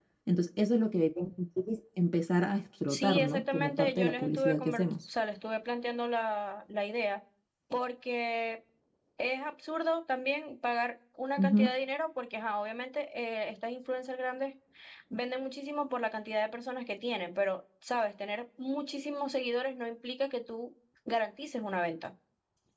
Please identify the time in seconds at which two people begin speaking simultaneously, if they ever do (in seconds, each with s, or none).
2.9 s